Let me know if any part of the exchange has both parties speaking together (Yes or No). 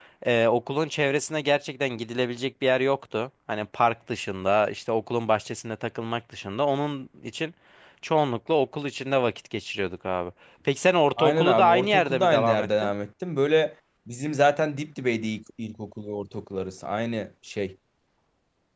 Yes